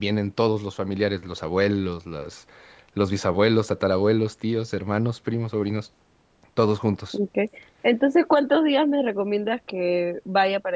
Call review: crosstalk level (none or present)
none